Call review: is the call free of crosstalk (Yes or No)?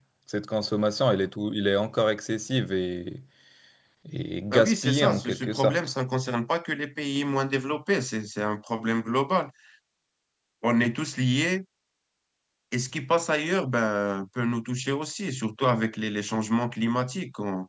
No